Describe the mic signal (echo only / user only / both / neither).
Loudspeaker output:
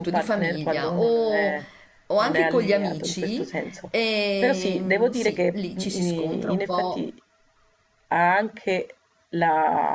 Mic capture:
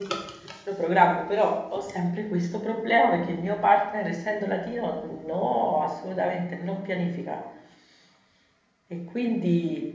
user only